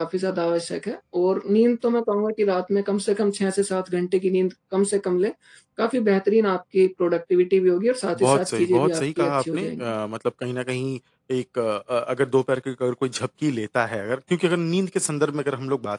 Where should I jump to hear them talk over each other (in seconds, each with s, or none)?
8.1 s